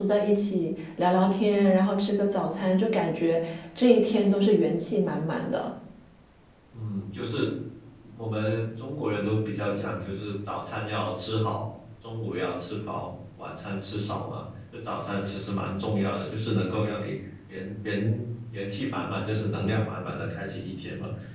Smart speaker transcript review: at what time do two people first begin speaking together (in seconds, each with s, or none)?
none